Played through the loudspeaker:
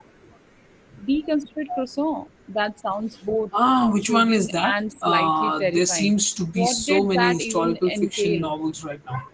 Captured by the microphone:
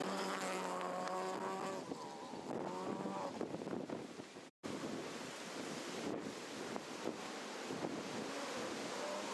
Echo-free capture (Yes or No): Yes